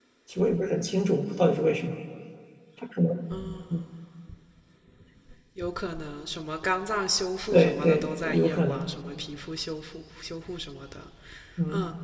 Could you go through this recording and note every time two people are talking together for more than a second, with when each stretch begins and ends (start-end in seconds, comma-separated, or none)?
7.5-8.9